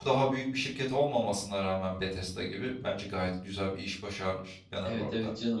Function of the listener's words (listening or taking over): taking over